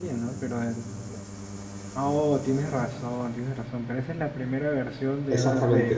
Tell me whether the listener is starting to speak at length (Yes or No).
Yes